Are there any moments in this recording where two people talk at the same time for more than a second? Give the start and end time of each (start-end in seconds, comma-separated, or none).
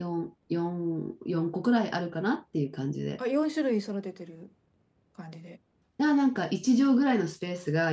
none